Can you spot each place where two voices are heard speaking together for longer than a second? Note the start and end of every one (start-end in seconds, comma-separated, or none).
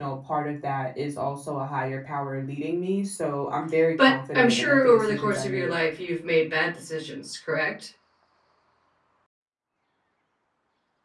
4.0-5.8